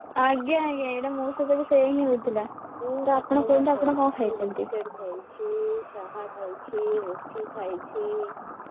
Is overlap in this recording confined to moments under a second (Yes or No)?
No